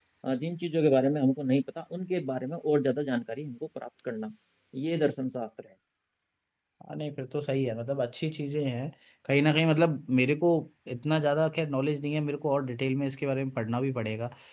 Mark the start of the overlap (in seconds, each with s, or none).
none